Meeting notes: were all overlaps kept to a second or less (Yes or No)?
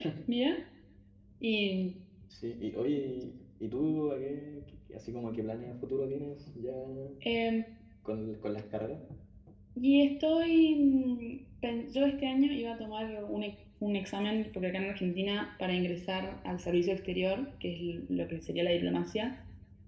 Yes